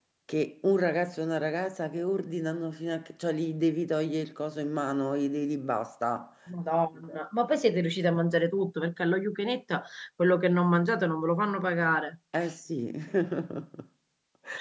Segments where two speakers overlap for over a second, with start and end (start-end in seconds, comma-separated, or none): none